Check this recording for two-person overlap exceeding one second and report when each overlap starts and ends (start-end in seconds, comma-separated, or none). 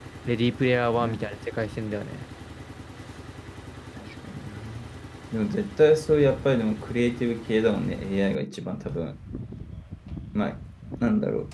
none